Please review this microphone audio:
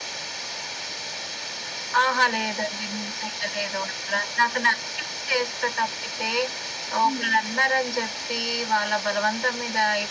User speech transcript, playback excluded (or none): హ్మ్.